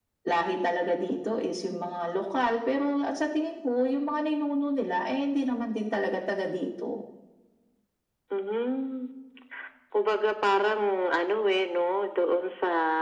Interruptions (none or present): none